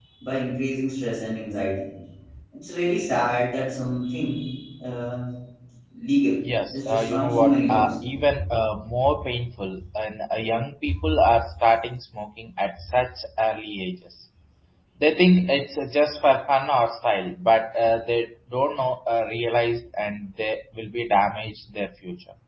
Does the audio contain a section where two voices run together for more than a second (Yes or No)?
Yes